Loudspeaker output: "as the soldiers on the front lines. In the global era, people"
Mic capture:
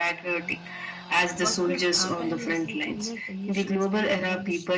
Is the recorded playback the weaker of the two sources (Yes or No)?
No